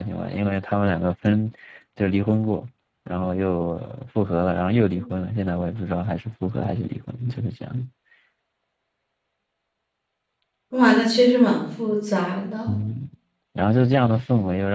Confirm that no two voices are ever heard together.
Yes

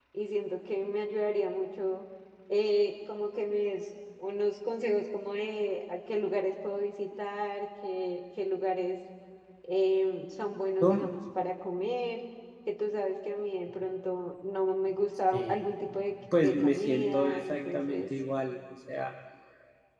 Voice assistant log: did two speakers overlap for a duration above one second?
Yes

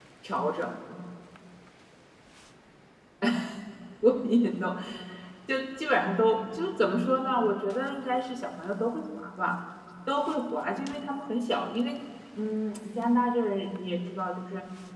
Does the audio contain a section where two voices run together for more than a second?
No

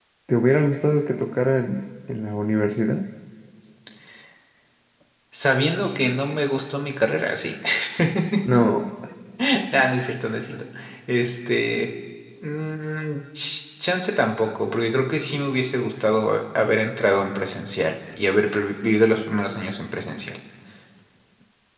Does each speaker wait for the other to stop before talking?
Yes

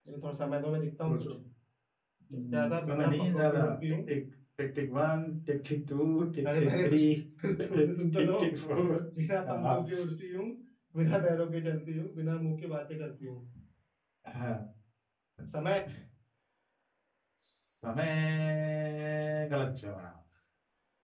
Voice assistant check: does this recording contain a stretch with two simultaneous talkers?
Yes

